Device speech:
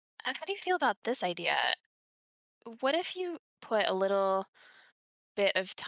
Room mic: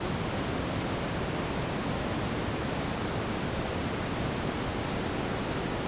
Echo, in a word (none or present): none